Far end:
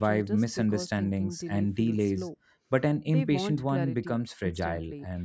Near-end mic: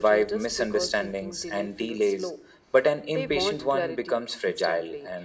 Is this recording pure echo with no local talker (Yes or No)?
Yes